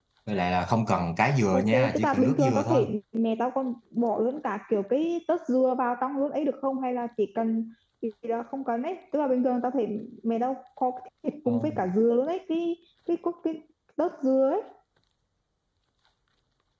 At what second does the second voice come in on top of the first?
1.5 s

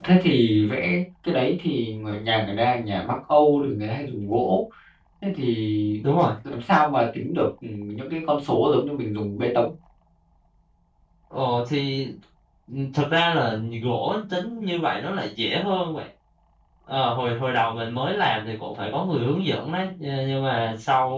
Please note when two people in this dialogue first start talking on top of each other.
none

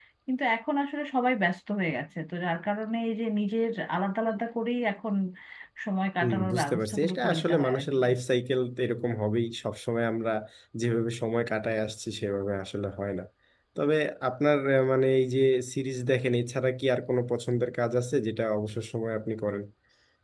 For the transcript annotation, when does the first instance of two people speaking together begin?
6.2 s

